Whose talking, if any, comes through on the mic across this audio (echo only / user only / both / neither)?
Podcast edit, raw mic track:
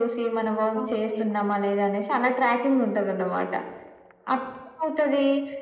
both